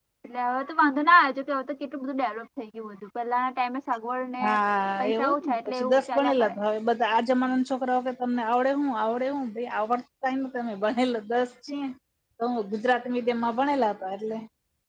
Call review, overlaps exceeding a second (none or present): present